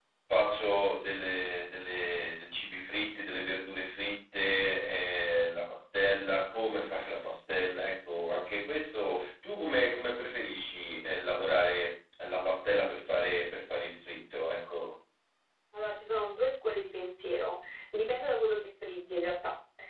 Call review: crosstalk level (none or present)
none